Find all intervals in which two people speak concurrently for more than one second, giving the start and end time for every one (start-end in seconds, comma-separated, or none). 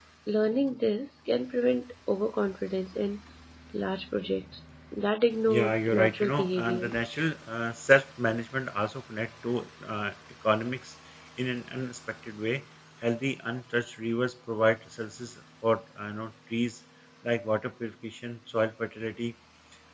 5.5-6.9